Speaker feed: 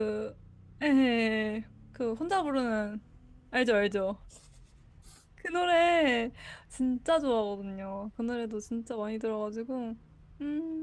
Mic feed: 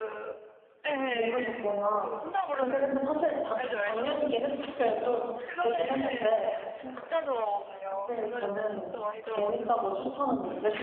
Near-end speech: present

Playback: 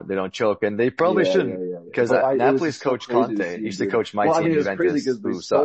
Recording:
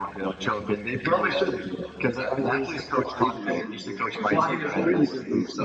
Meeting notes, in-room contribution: present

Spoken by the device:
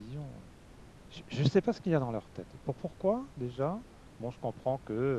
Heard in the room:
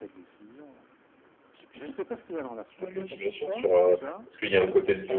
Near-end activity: present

